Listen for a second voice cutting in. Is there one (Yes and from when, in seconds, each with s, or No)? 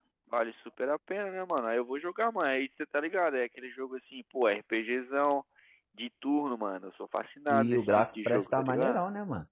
Yes, from 7.5 s